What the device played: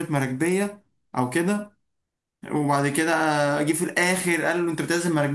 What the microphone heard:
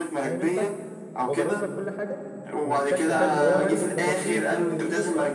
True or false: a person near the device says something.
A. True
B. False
A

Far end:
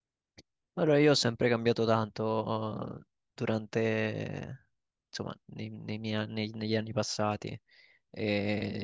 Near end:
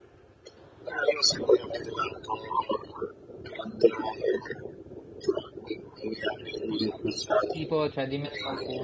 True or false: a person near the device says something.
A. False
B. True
B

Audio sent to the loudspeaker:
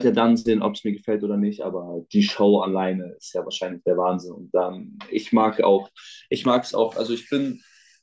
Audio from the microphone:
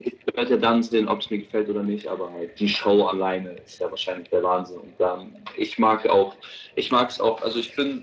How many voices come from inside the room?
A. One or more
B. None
B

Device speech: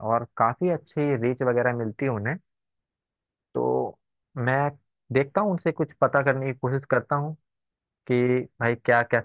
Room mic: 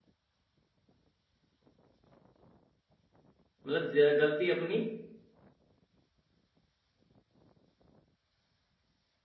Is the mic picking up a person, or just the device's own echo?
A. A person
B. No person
A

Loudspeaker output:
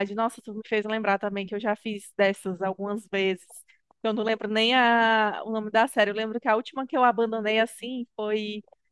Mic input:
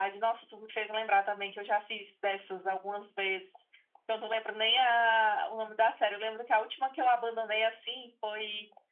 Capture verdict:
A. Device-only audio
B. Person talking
A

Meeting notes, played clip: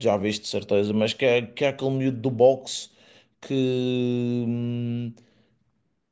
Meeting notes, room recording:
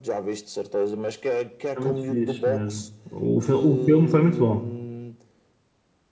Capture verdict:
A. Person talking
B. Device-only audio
A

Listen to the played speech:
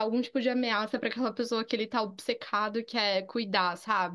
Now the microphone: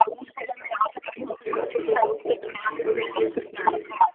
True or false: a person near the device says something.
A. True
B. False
A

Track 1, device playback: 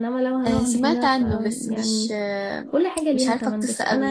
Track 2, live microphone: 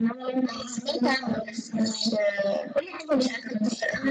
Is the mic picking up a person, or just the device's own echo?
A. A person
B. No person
B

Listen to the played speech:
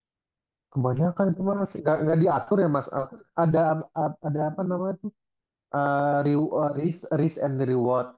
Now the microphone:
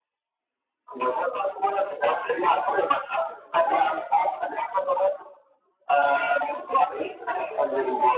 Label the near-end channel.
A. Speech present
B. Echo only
B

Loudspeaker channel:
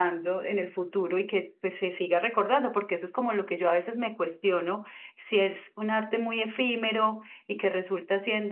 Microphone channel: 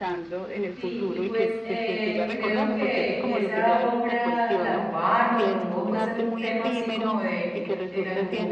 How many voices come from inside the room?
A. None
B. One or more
B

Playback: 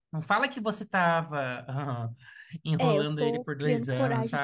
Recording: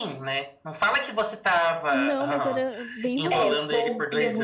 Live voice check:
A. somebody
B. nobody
A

